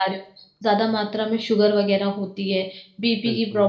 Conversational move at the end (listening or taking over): listening